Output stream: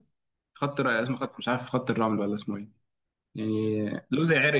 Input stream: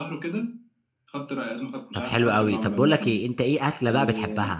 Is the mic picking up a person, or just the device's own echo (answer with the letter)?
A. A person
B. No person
A